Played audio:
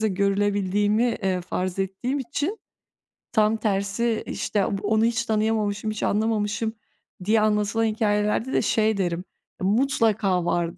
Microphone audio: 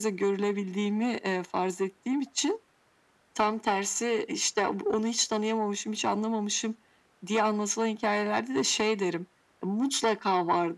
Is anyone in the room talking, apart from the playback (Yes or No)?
No